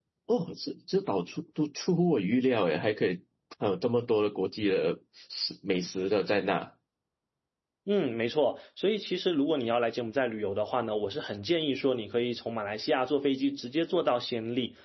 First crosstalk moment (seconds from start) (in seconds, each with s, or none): none